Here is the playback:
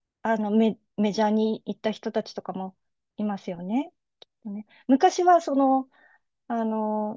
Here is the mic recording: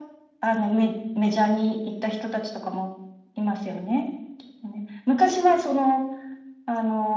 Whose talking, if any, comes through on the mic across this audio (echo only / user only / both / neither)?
echo only